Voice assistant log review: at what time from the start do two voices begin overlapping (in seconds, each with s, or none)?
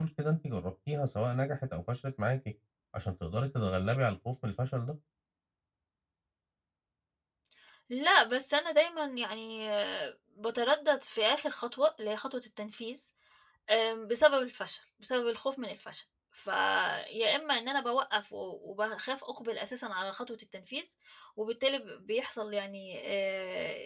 none